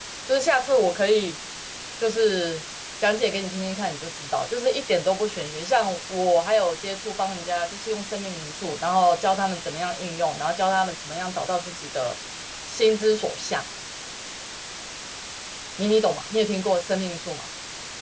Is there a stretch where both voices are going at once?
No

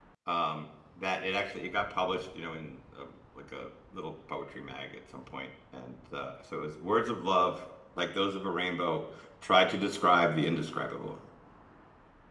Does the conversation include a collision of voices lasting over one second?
No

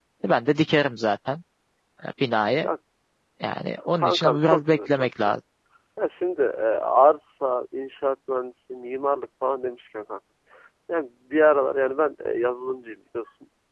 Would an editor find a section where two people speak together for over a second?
Yes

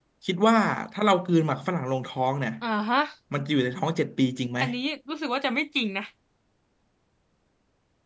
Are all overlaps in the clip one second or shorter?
Yes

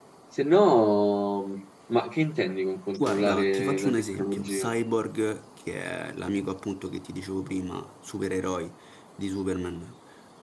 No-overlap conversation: No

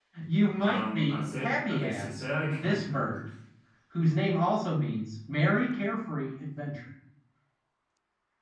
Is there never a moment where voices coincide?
No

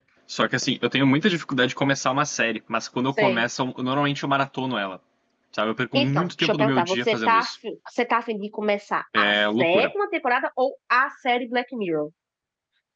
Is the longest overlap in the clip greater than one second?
Yes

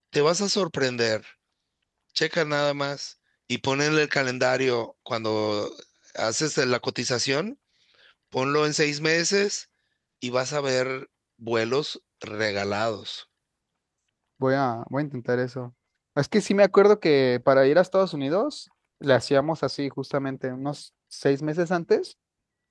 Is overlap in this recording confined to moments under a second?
Yes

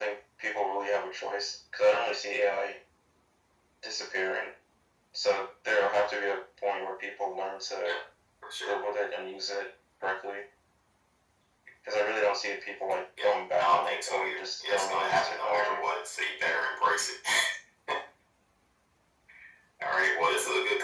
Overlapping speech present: Yes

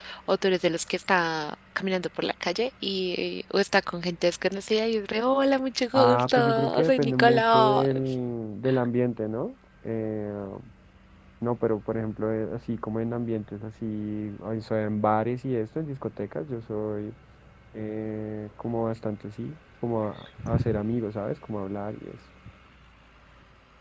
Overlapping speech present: Yes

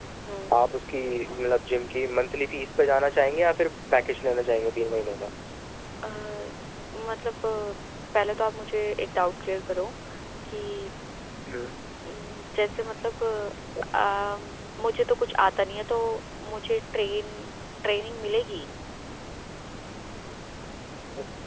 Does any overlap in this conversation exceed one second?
No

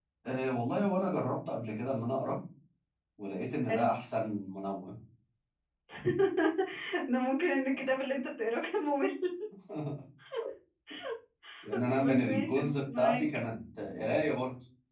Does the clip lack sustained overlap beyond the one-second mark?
No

